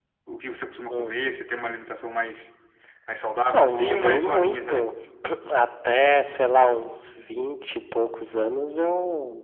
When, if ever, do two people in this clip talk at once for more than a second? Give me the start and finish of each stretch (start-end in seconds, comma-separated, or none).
3.5-4.9